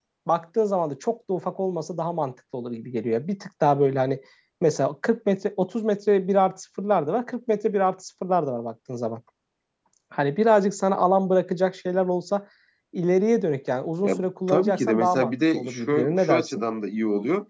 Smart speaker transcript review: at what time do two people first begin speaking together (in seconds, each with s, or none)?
14.0 s